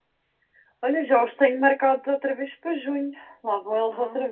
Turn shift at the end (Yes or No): Yes